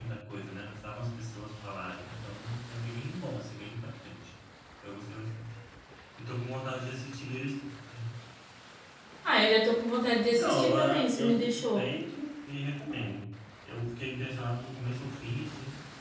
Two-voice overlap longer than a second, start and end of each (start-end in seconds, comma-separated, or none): 10.3-11.9